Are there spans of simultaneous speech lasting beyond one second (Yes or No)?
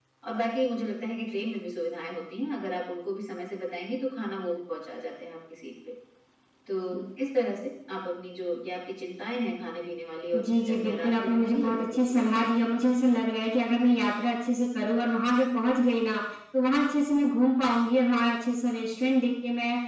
Yes